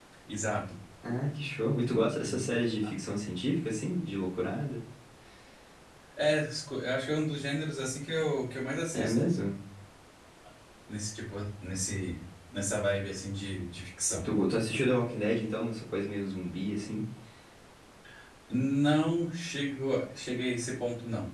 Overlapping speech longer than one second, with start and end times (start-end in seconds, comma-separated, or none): none